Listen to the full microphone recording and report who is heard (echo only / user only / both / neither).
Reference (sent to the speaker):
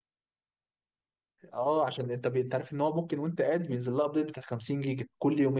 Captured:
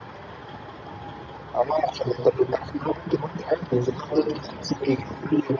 echo only